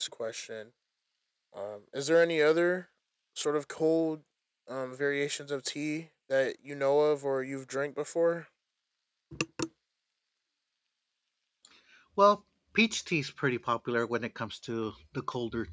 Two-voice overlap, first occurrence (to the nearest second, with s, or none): none